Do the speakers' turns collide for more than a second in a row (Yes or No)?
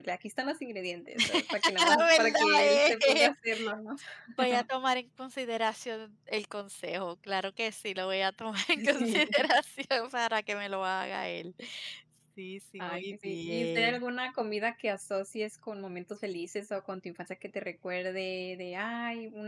Yes